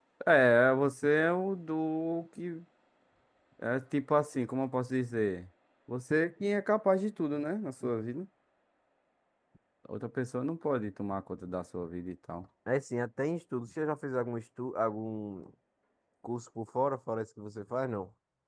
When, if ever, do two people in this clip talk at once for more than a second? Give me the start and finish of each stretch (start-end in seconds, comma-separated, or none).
none